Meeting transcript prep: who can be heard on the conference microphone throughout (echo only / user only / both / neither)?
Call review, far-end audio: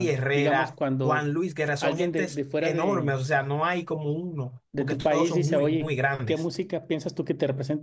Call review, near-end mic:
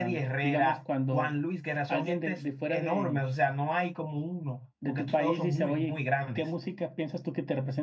echo only